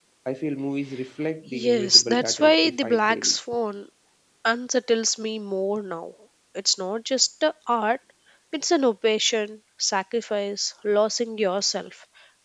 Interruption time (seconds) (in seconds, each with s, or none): 1.5 s